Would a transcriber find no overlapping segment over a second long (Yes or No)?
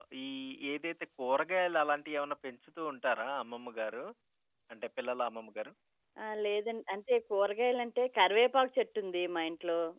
Yes